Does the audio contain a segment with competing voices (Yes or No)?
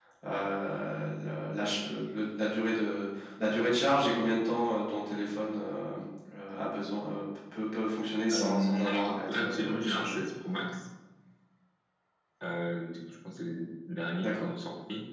Yes